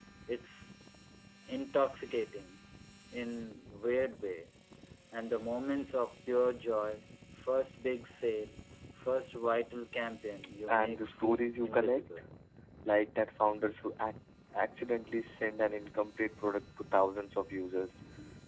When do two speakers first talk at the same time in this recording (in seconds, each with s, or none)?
10.7 s